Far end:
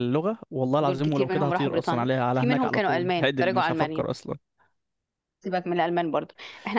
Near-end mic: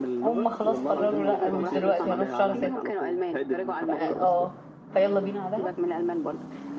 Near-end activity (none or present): present